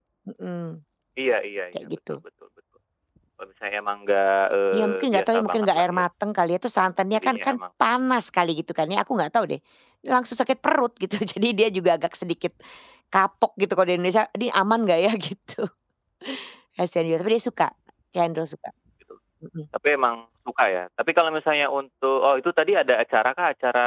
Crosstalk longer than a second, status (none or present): present